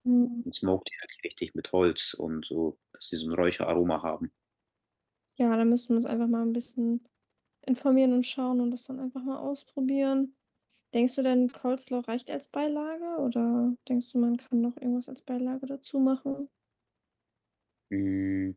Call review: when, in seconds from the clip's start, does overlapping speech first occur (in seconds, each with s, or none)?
none